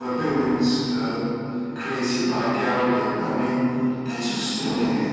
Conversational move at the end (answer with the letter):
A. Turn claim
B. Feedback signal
A